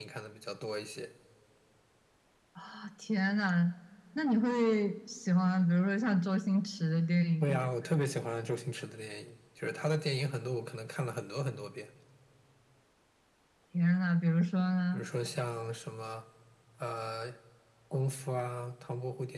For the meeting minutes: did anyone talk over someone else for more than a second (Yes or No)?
No